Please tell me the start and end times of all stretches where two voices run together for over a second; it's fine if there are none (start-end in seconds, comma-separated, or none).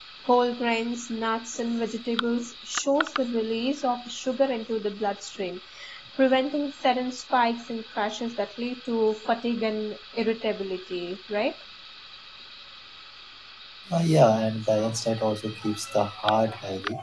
none